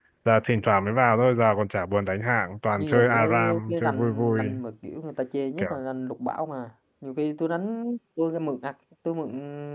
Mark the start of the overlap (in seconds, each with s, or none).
2.8 s